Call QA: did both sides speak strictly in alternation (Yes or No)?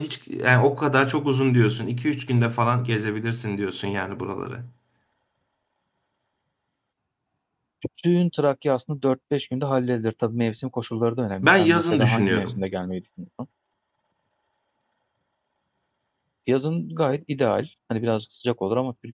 No